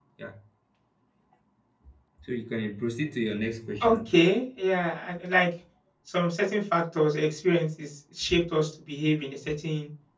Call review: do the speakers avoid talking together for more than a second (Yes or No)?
Yes